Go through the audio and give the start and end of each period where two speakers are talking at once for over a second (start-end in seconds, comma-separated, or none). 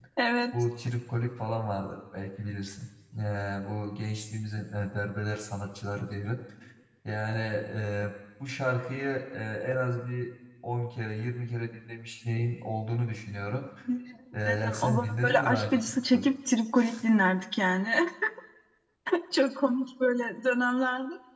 14.4-16.3